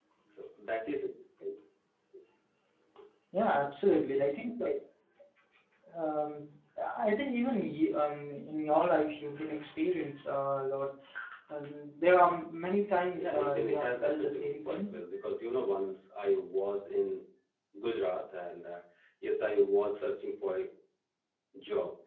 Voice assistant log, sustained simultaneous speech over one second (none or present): present